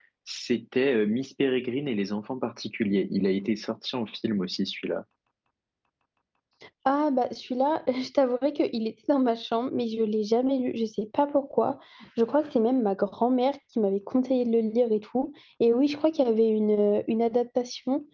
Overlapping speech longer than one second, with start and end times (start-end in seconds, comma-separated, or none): none